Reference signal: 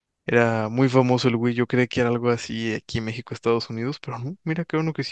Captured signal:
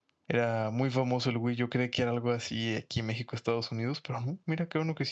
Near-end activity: none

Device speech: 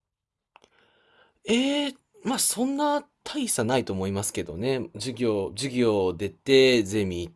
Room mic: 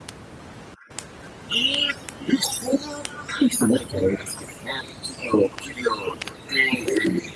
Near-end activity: none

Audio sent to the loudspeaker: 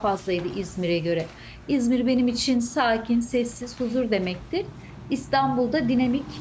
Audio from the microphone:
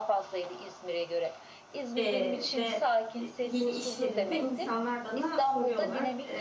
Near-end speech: present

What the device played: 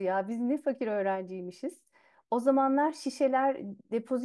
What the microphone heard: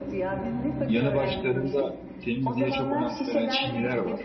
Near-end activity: present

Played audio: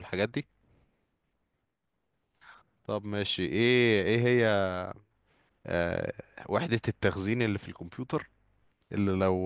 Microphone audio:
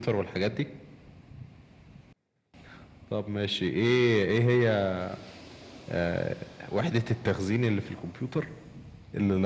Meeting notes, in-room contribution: none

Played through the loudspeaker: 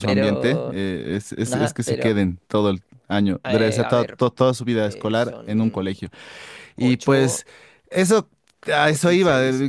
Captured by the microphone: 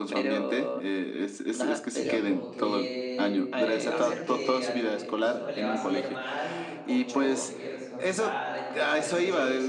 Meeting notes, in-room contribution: present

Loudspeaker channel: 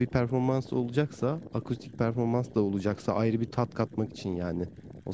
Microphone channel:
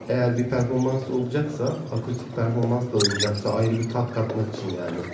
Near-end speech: none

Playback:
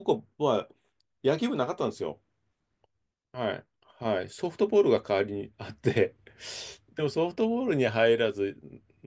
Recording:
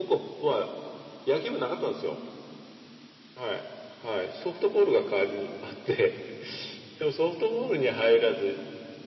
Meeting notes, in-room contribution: none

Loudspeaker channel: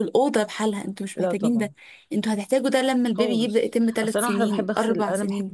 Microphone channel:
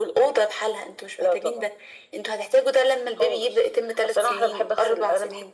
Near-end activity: none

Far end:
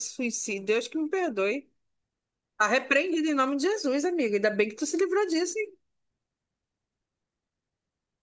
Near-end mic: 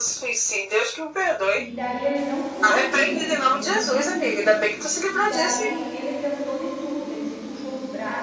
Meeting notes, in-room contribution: present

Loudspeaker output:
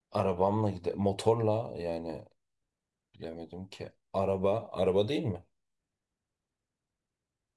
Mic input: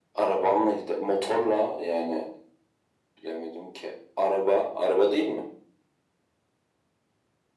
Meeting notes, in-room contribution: none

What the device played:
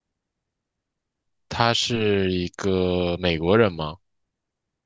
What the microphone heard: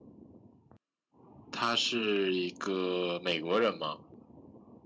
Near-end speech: none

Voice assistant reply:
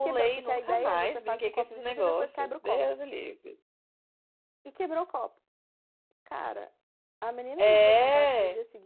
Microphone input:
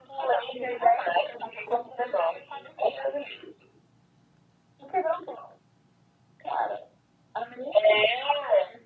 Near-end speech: none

